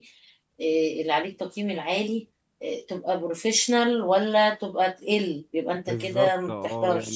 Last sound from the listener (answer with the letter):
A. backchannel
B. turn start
B